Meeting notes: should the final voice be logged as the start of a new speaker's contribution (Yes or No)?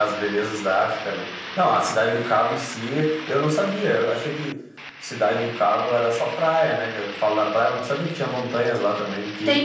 Yes